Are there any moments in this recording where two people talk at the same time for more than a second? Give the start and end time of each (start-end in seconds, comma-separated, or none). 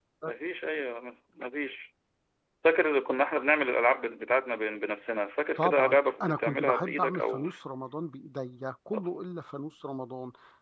5.6-7.4